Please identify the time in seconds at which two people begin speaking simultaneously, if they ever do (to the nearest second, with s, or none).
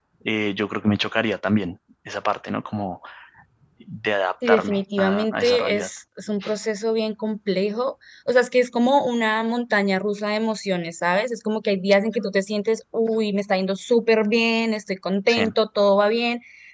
4 s